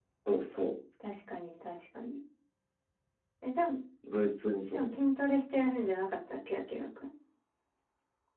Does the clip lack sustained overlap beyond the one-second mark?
Yes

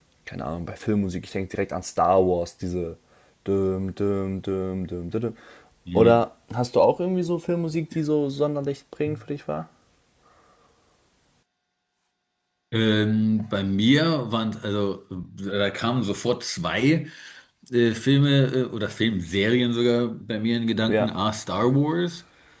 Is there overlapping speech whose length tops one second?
No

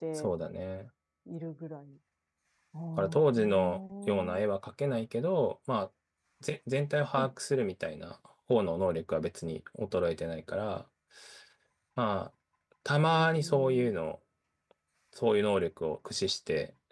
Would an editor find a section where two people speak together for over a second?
Yes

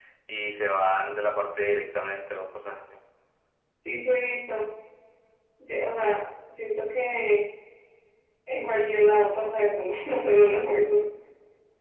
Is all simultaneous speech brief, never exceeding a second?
Yes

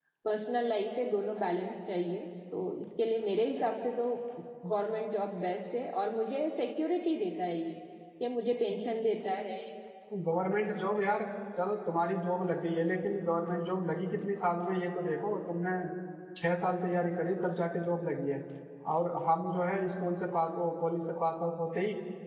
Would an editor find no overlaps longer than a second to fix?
Yes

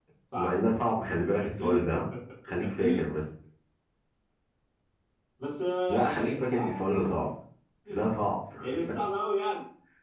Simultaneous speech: Yes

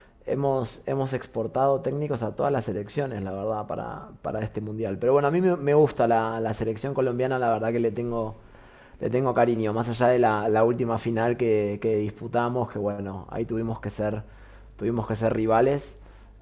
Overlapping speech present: No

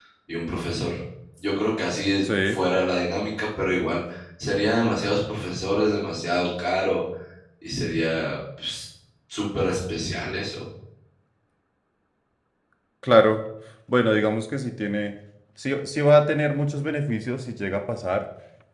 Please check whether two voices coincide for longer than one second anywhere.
No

